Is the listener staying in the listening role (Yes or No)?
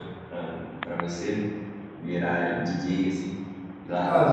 No